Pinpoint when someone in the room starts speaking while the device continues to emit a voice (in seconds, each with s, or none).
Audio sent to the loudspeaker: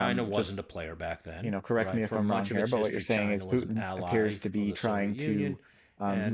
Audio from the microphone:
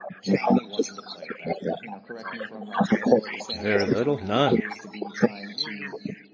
3.5 s